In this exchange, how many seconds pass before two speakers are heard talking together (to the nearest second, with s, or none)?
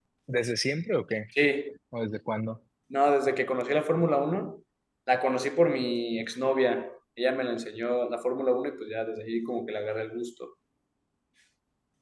none